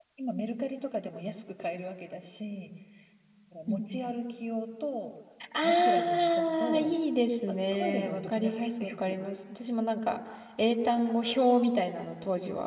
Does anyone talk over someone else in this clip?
Yes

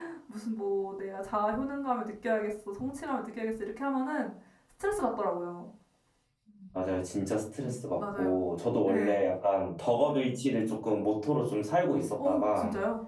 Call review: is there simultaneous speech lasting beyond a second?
No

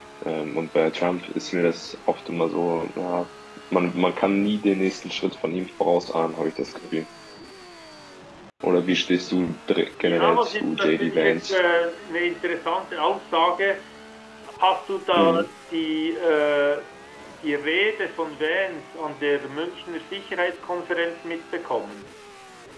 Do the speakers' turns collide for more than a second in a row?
Yes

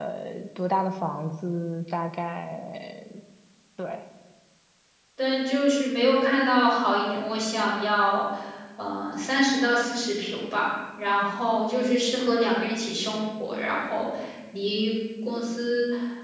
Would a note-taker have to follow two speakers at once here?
No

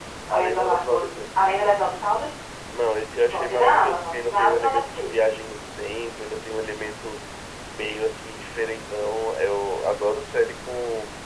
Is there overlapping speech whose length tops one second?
Yes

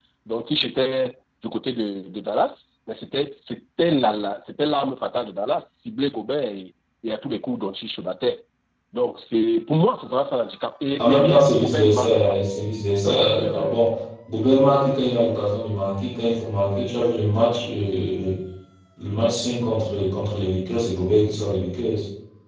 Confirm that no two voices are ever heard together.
No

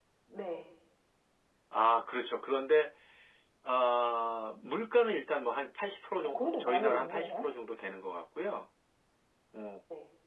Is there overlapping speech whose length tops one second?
Yes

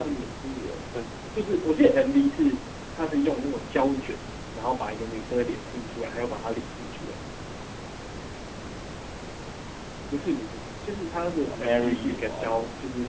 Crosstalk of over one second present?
Yes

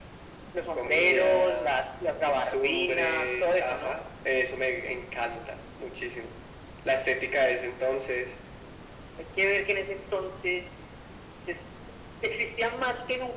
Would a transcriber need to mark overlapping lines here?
Yes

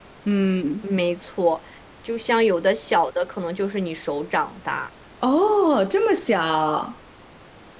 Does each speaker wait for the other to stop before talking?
Yes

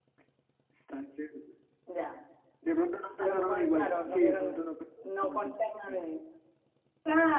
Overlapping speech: Yes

